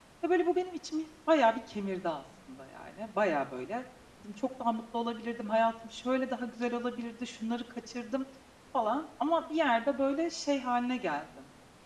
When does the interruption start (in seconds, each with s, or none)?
none